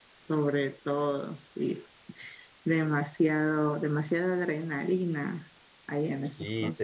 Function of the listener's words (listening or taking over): taking over